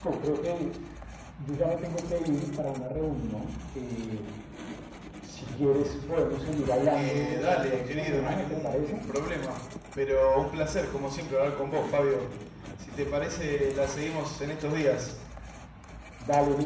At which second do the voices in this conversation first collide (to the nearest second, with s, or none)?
7 s